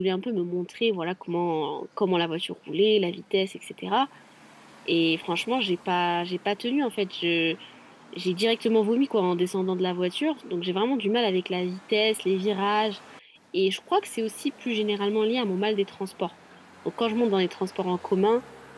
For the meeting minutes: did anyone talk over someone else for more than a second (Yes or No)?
No